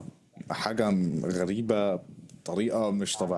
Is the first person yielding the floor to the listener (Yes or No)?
Yes